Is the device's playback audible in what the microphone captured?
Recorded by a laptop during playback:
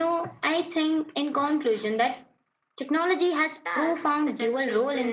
Yes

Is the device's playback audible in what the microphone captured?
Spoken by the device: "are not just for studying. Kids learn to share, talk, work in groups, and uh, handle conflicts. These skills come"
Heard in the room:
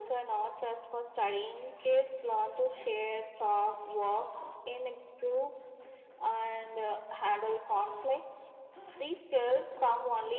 Yes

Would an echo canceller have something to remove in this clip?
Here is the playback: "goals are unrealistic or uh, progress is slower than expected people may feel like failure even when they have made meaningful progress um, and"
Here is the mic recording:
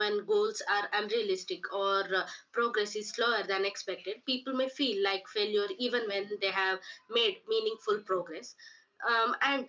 Yes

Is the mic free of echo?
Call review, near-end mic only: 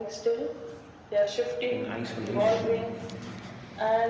No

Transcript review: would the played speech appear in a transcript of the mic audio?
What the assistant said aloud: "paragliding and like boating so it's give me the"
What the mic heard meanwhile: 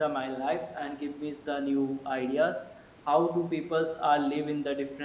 No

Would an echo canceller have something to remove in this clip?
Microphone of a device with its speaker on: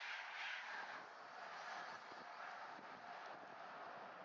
No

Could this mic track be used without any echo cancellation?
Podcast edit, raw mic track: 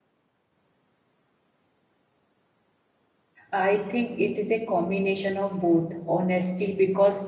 Yes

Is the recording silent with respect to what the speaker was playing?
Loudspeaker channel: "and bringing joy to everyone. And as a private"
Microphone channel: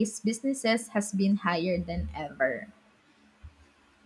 Yes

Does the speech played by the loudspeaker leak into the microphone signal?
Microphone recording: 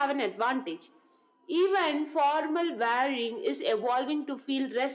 Yes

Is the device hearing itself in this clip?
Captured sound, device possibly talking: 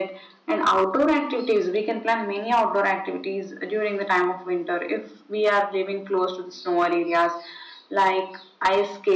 Yes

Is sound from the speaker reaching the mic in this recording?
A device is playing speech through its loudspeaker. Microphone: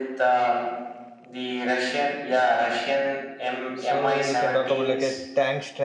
Yes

